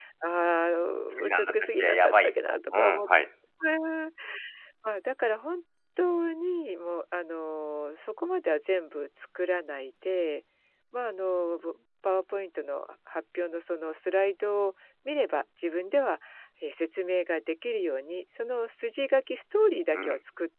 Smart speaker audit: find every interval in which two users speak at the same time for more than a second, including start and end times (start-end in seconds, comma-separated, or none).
1.1-3.1